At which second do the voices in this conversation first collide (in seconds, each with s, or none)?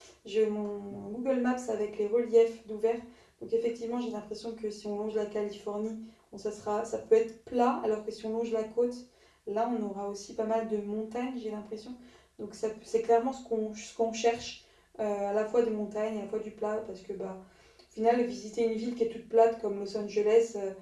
none